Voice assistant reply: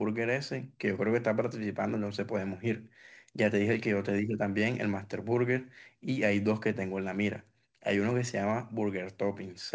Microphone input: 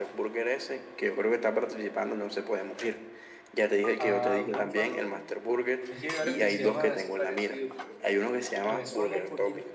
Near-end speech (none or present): present